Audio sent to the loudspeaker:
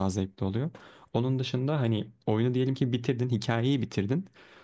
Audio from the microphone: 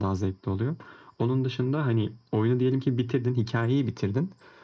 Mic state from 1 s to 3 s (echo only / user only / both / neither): echo only